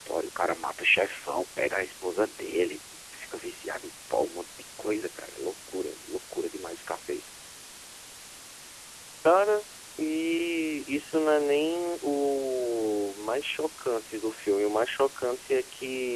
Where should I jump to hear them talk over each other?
none

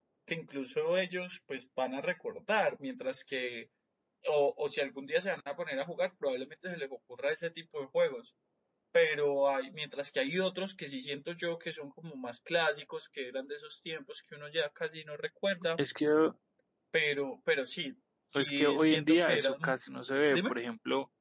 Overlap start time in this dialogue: 18.4 s

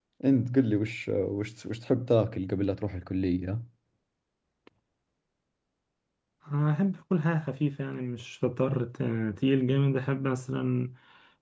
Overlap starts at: none

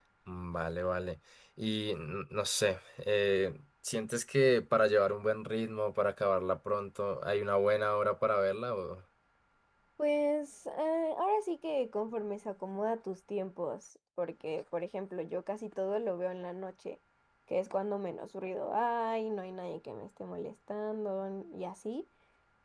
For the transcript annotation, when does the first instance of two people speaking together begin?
none

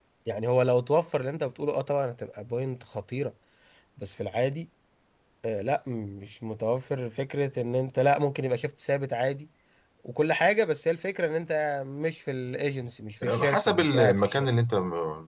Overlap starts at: 13.2 s

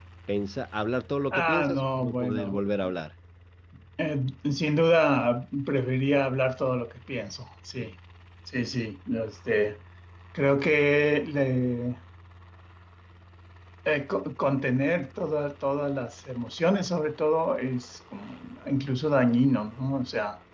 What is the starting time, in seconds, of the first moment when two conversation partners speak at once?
1.3 s

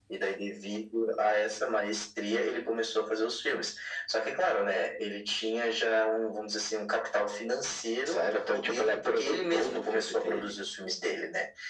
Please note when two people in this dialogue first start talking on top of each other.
8.1 s

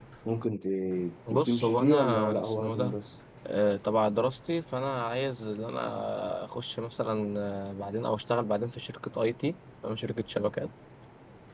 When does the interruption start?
1.3 s

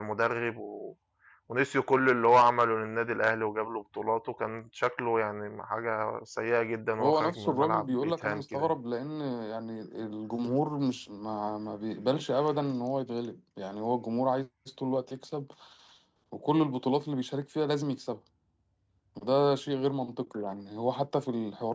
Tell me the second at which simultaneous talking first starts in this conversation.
7.0 s

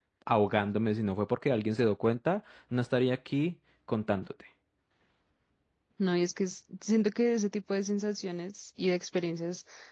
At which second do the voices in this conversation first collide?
none

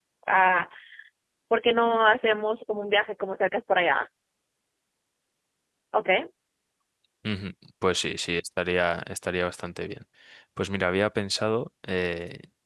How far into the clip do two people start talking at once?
none

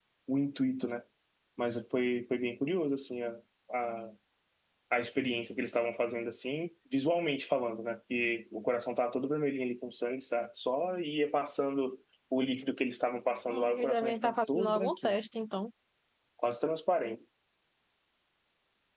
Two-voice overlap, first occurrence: 13.5 s

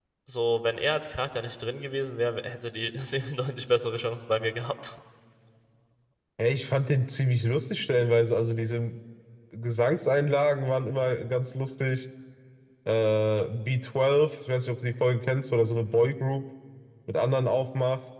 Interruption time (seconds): none

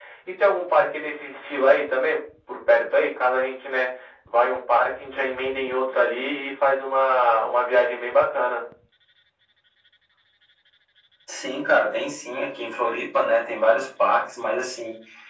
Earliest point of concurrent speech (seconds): none

